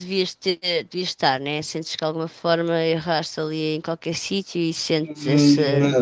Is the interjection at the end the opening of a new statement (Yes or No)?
Yes